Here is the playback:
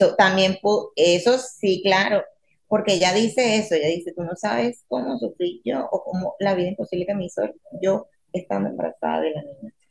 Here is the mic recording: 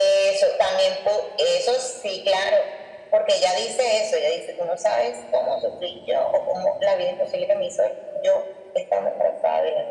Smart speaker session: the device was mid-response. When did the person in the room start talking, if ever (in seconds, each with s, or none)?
none